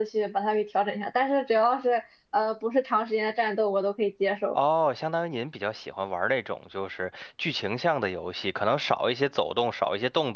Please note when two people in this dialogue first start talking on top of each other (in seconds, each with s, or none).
none